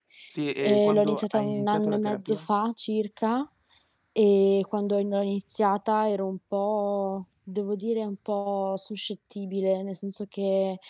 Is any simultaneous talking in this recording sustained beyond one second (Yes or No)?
Yes